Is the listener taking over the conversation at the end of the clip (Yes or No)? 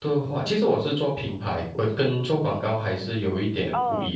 Yes